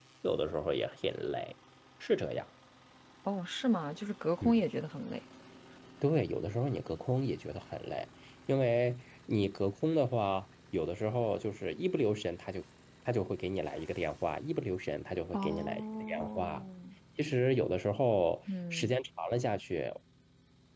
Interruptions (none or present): present